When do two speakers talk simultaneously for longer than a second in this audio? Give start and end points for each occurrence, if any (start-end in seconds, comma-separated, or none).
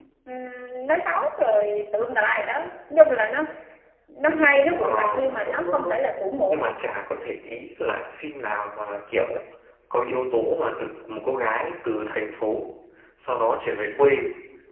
4.7-6.0